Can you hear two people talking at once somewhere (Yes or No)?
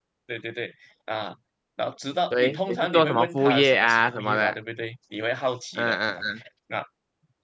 Yes